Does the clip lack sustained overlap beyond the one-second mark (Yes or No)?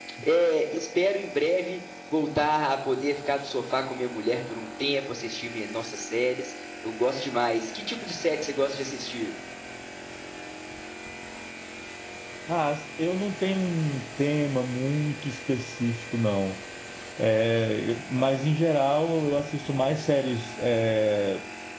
Yes